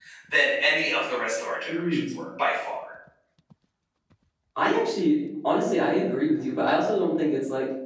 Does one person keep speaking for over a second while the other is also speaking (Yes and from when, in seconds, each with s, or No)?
No